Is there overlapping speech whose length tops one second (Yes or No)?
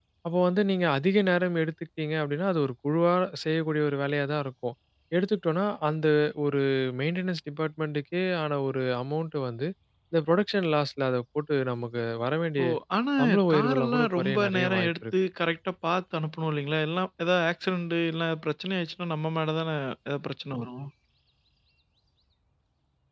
Yes